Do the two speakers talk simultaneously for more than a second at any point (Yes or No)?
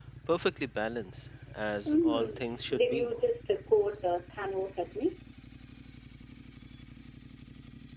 Yes